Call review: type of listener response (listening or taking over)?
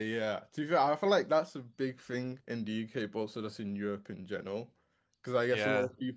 listening